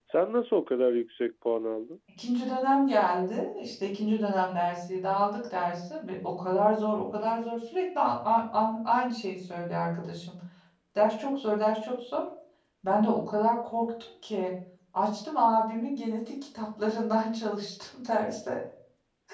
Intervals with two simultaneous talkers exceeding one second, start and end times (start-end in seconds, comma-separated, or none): none